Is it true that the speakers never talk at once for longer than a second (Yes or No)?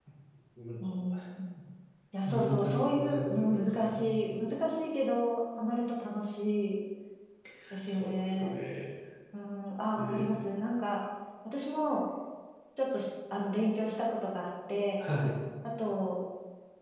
No